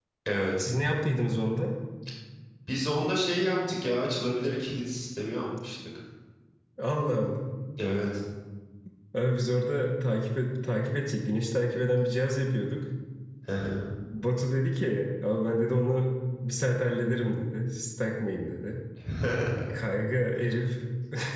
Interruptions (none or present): none